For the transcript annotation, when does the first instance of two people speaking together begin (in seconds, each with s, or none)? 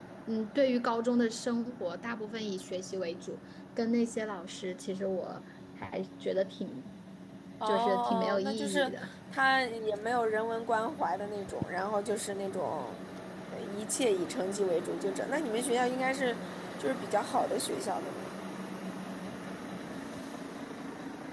7.7 s